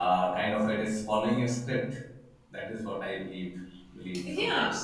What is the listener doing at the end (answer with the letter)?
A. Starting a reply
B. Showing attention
A